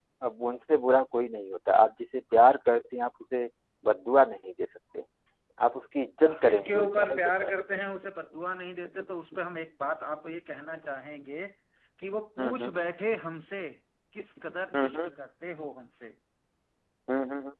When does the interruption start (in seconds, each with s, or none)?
6.3 s